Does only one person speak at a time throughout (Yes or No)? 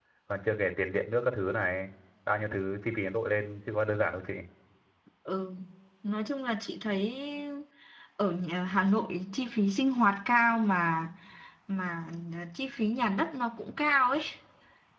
Yes